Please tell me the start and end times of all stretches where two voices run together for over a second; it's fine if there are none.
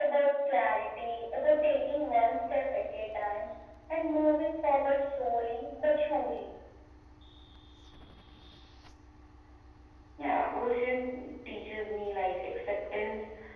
none

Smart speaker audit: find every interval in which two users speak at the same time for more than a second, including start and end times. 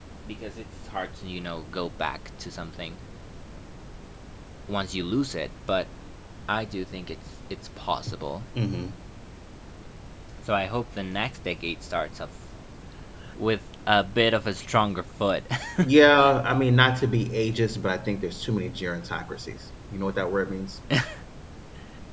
none

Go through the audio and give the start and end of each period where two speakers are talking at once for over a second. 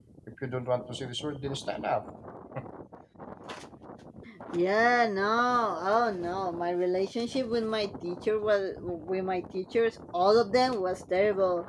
none

